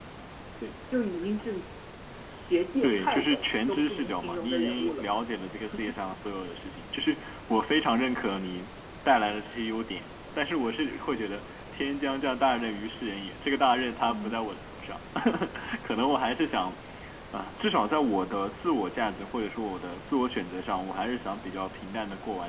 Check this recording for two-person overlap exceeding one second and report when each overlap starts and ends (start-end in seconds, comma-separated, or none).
2.8-5.0